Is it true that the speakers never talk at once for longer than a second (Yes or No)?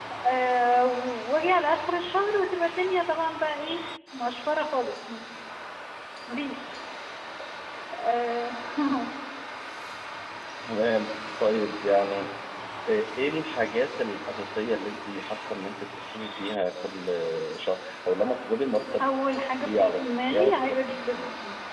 No